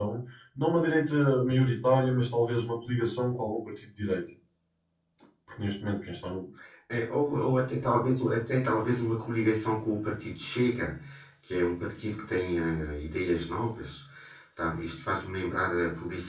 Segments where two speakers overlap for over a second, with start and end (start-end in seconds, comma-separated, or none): none